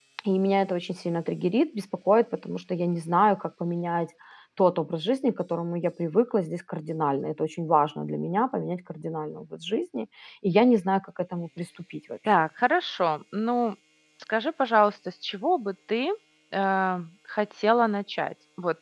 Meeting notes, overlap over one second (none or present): none